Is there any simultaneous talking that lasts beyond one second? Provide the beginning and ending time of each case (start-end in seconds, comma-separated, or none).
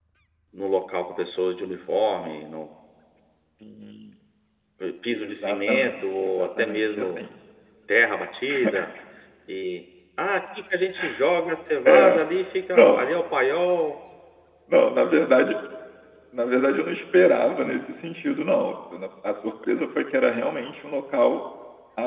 5.1-7.2